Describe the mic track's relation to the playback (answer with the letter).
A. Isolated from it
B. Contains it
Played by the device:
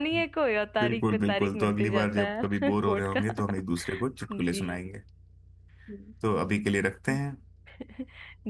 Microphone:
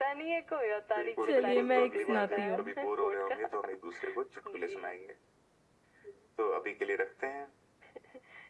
B